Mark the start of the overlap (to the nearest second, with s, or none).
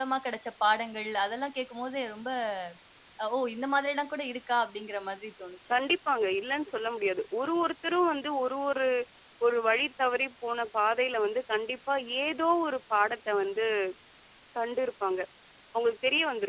none